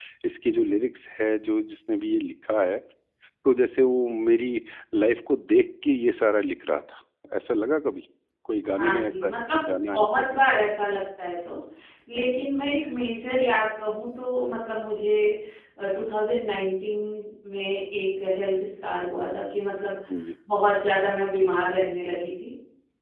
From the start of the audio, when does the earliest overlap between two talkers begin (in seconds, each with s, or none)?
8.8 s